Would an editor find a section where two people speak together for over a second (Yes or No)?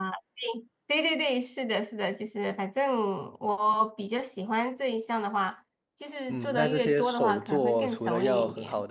Yes